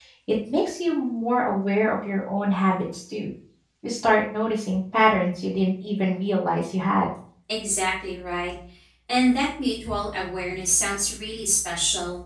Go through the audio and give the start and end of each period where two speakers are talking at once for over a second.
none

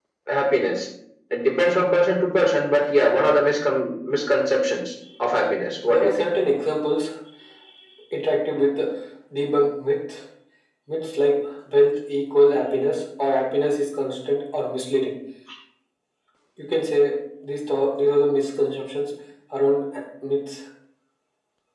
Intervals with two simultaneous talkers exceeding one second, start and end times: none

